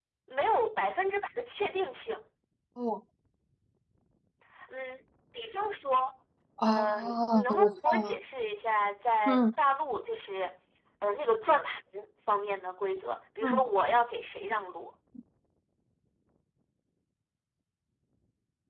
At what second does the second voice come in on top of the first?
7 s

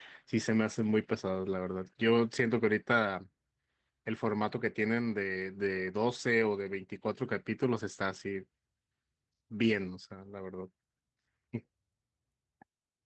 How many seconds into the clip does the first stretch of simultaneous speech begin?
none

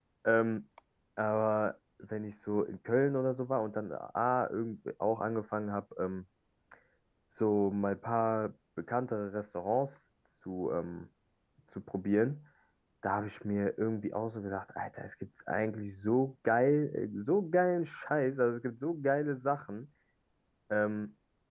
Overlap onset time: none

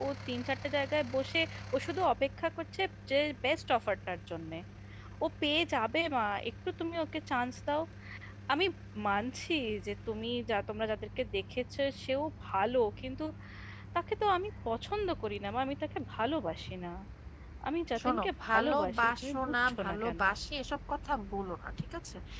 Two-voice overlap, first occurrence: 18 s

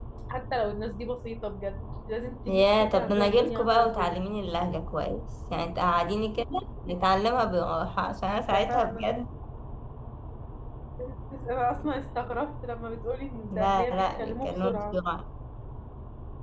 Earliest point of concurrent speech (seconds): 2 s

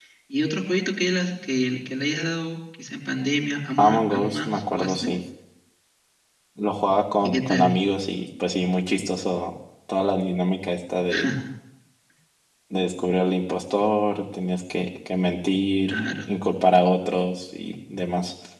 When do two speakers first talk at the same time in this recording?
4 s

